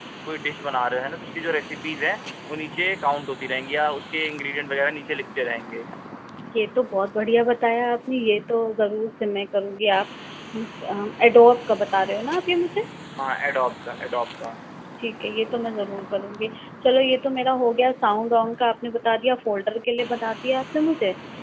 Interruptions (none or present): none